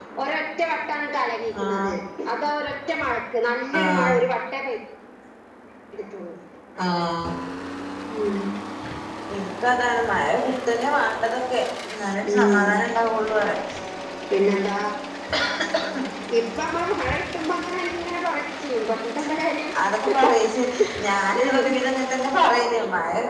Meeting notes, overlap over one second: none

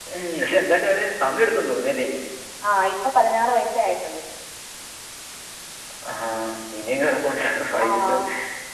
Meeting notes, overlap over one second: none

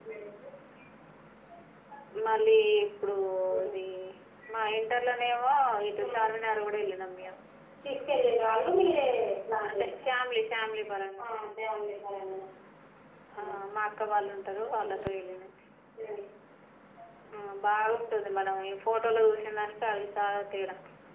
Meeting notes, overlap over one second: none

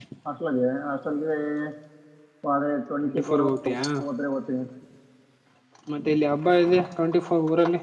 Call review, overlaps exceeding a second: none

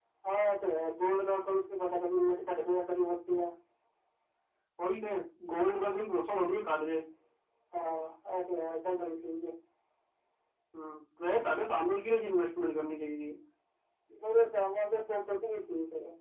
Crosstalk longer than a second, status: none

